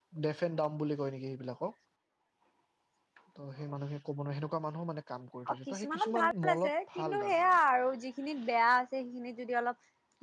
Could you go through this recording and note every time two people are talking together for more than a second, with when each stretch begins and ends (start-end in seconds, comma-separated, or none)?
5.5-7.5